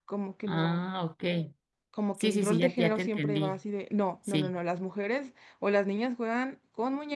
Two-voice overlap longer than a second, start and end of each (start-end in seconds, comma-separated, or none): 2.2-3.6